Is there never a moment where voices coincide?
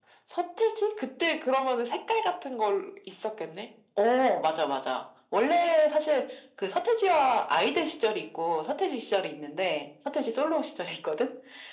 Yes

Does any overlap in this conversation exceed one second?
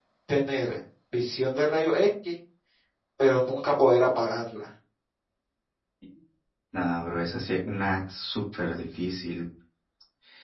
No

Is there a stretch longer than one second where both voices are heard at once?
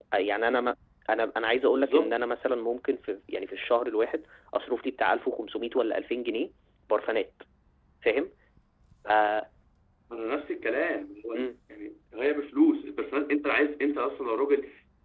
No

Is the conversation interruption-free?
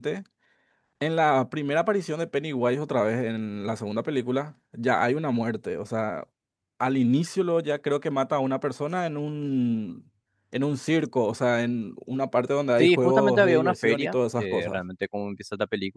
No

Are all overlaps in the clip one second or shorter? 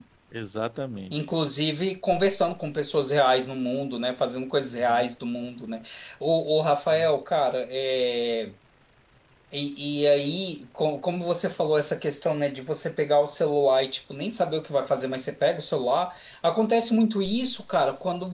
Yes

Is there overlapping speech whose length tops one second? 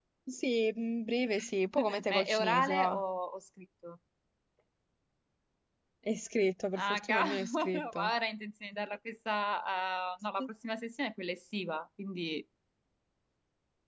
Yes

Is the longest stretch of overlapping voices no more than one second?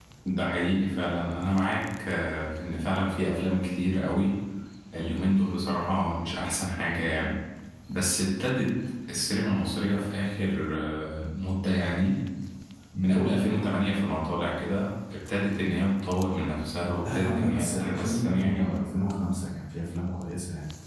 No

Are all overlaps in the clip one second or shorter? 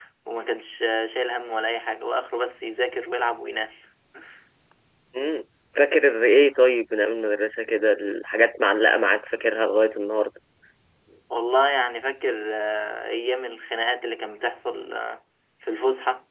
Yes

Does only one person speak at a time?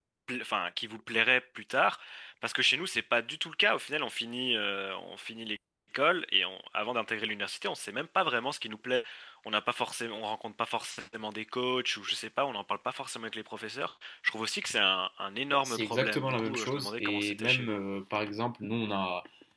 No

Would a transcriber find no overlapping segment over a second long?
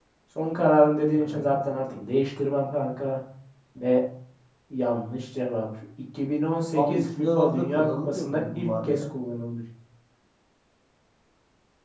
No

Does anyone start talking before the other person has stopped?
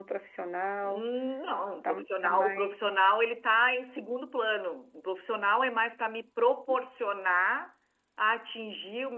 Yes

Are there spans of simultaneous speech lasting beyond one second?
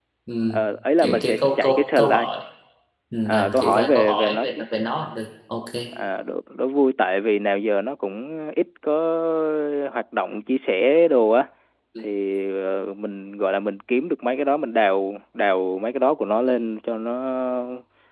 Yes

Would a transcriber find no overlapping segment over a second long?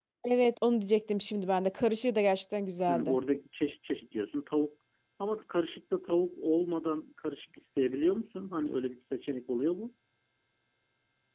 Yes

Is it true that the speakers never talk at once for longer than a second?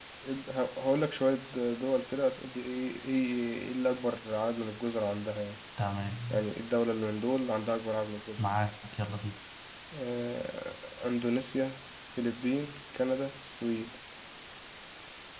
Yes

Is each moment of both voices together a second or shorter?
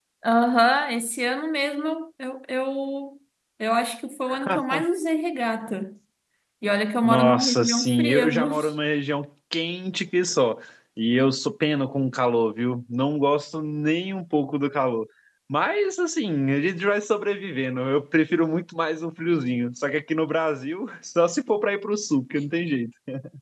No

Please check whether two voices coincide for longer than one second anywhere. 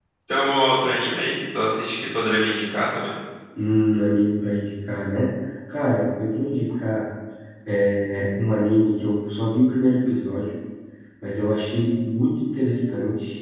No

